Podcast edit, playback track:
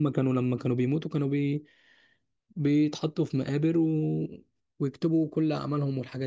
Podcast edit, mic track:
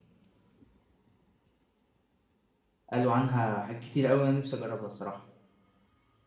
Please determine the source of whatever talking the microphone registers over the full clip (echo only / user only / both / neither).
user only